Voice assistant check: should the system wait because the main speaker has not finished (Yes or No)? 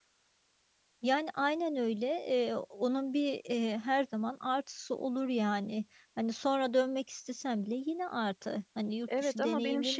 No